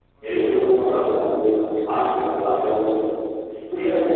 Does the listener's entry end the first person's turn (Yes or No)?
No